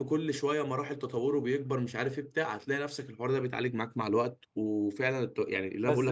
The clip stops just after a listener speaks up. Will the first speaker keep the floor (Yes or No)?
No